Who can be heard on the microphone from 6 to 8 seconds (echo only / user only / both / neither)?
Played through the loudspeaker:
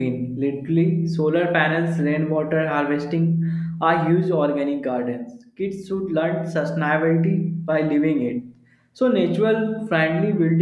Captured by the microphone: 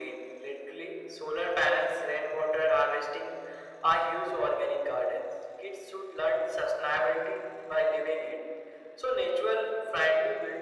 echo only